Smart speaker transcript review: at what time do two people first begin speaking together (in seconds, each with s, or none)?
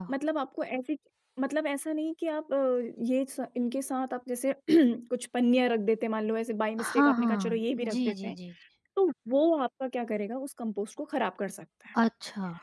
6.8 s